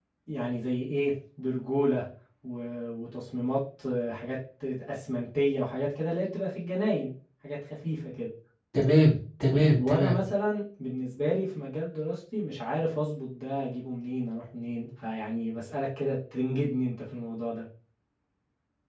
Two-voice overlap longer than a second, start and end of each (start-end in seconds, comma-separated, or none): none